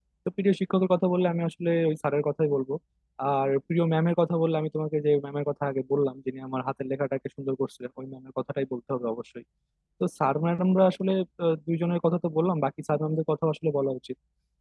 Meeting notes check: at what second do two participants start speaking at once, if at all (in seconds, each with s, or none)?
none